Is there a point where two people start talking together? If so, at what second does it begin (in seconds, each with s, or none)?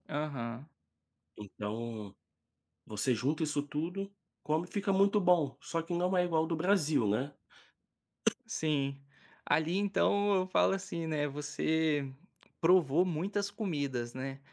none